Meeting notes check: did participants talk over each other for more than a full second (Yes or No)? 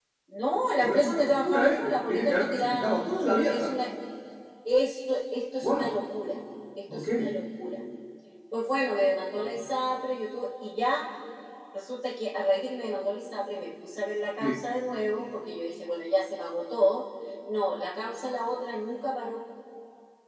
Yes